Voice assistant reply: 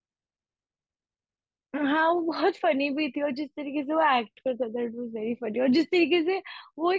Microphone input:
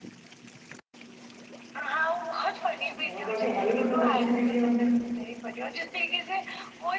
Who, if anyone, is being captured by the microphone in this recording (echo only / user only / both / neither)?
both